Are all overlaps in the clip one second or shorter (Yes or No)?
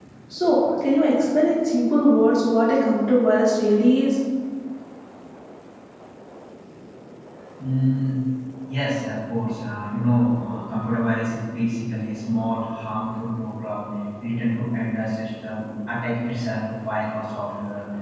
Yes